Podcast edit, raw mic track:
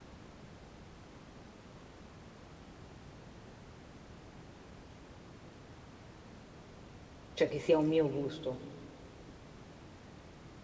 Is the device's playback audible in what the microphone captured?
No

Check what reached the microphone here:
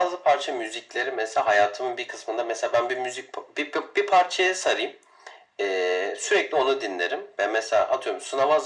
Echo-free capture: No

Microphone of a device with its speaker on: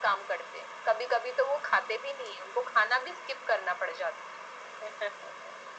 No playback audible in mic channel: No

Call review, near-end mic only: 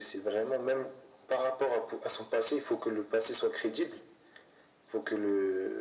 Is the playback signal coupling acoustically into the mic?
Yes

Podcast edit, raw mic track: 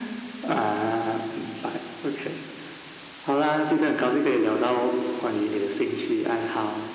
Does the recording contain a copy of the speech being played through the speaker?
Yes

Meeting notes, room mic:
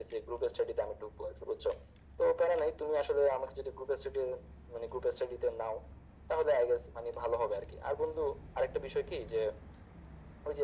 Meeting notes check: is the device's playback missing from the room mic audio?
No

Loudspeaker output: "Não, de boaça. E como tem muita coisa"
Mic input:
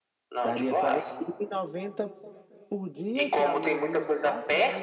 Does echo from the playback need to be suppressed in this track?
Yes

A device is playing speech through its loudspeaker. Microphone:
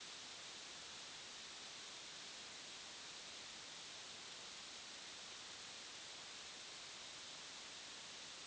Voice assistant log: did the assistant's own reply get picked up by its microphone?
No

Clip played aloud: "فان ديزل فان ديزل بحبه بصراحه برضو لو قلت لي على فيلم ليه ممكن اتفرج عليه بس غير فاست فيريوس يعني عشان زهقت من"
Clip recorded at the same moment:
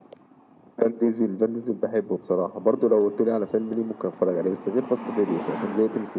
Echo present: Yes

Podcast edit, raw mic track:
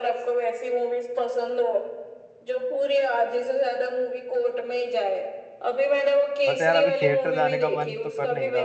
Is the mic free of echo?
No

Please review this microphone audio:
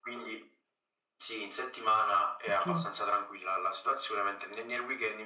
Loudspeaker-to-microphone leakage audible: Yes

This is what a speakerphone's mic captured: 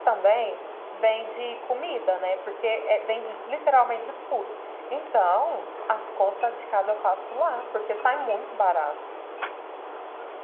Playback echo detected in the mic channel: No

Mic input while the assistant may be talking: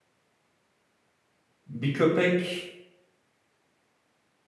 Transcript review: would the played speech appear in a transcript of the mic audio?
No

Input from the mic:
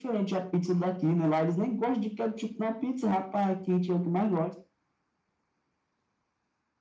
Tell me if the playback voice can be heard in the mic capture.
Yes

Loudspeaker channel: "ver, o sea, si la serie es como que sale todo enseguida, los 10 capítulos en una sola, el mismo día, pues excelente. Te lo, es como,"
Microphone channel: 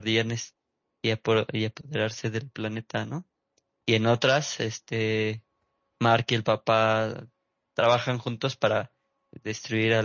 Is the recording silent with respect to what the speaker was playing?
Yes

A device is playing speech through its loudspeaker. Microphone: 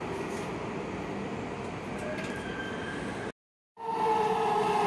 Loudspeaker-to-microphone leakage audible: No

